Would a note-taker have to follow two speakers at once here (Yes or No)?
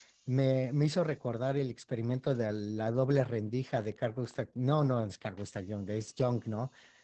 No